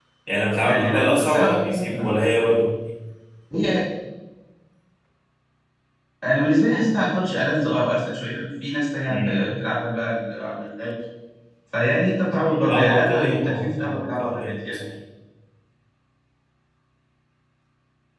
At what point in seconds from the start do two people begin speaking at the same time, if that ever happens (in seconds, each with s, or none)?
0.6 s